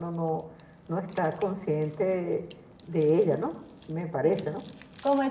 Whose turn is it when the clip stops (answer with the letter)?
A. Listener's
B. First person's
A